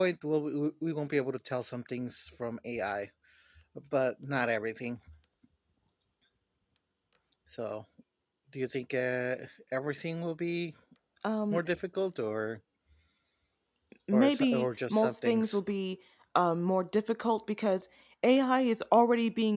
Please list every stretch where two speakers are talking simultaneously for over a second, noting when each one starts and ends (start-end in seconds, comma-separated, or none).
14.1-15.6